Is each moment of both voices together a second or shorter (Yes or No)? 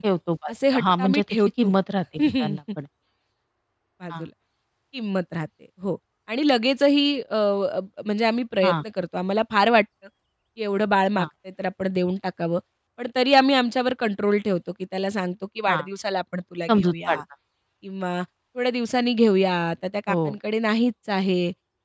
No